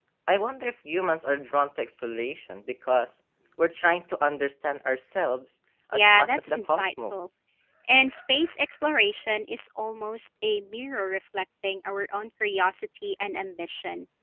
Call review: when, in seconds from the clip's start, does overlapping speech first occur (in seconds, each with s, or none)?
5.7 s